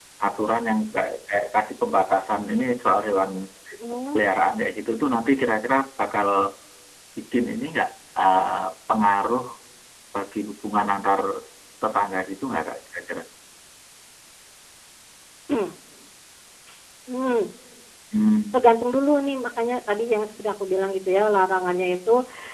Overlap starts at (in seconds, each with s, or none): none